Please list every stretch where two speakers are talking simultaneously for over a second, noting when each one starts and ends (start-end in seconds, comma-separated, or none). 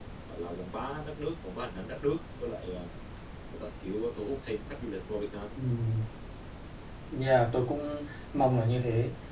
none